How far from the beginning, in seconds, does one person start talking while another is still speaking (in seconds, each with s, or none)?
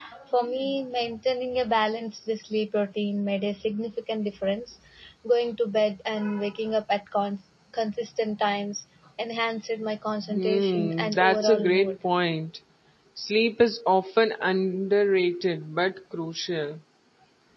10.2 s